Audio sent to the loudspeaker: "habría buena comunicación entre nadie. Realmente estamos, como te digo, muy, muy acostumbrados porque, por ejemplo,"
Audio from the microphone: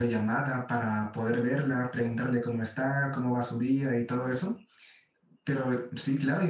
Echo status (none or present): none